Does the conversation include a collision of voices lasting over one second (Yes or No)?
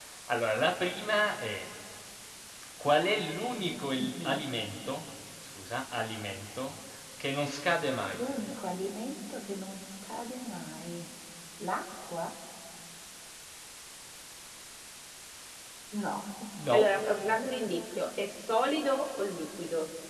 No